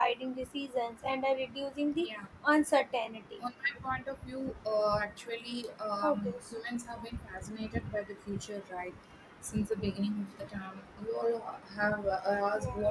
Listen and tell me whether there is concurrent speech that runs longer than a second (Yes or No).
No